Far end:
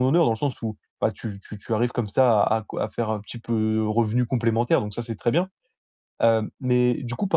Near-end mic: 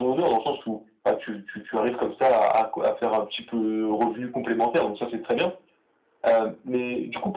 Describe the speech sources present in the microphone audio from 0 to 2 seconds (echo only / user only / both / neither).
echo only